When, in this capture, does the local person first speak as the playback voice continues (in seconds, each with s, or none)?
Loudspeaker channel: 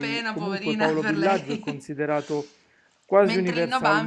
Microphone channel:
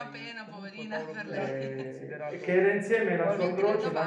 1.2 s